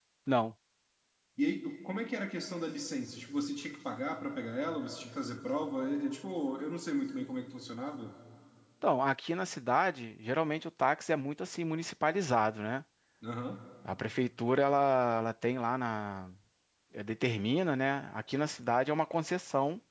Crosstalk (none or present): none